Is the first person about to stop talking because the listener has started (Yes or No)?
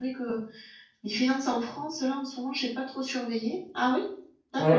Yes